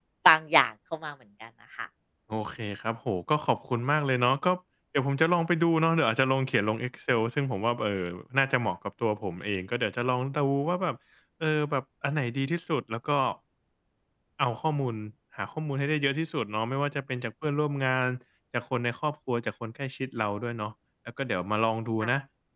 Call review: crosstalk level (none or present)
none